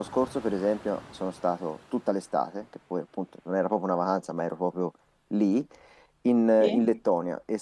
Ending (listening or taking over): listening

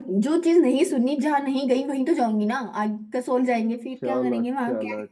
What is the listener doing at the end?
taking over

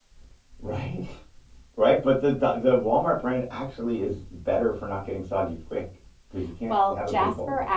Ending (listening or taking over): taking over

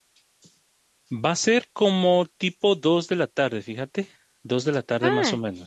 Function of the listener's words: taking over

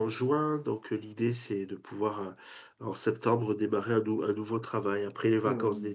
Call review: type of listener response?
taking over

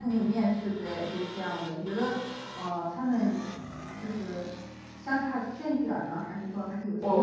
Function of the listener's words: taking over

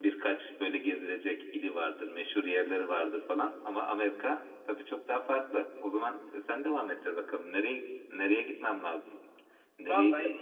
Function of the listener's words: taking over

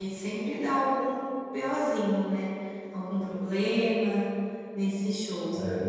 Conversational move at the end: listening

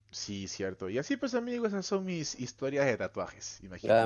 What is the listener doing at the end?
taking over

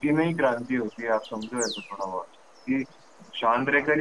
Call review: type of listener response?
listening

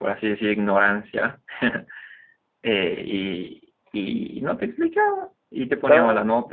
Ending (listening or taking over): listening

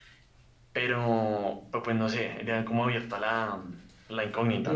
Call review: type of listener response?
taking over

